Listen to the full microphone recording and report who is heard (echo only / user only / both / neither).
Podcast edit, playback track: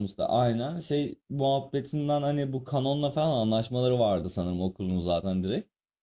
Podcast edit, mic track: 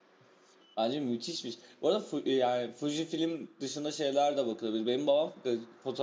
user only